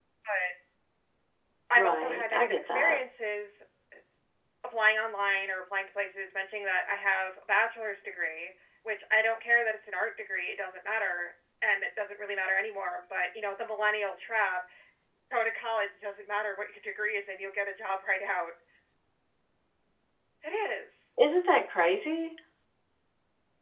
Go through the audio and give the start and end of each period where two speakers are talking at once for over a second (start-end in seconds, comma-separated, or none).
1.8-3.0